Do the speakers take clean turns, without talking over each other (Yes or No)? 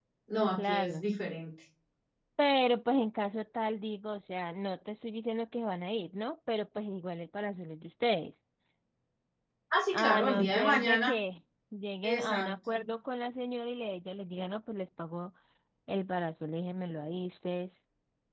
No